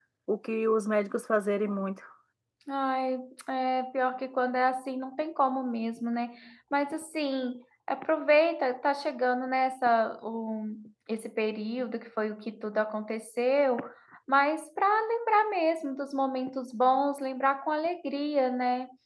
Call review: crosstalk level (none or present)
none